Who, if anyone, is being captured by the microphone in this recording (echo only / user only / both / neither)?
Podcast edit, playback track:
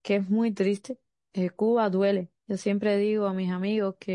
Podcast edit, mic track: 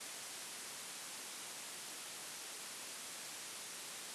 neither